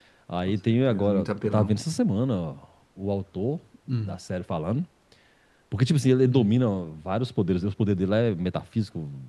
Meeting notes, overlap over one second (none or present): present